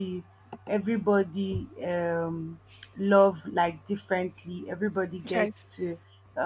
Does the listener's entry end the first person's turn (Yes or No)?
No